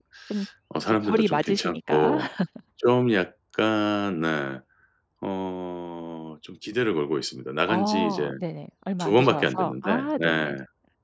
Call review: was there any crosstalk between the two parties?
Yes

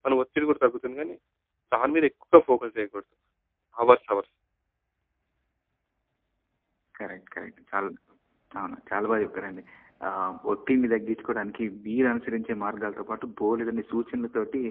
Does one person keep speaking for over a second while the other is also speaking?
No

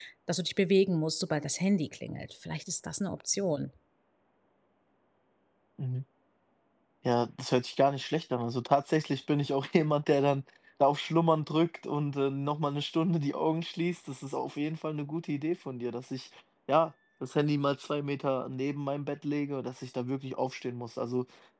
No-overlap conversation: Yes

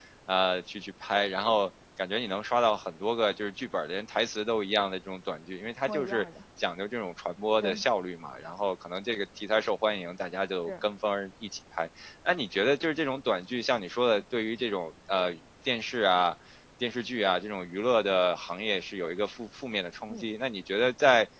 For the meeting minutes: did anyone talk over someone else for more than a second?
No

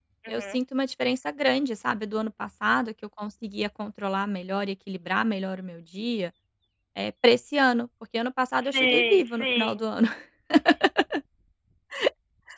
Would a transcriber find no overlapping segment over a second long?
No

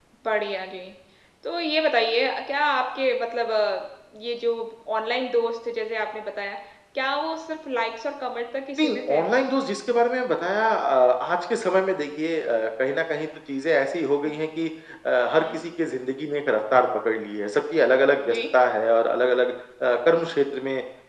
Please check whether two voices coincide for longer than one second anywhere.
No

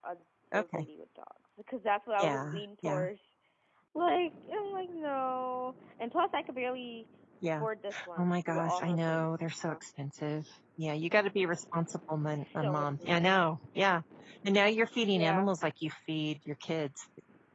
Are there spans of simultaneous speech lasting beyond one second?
Yes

